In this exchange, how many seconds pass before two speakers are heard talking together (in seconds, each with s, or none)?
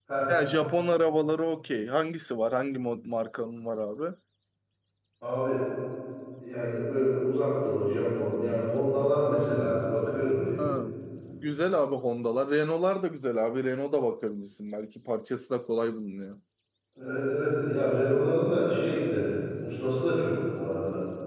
none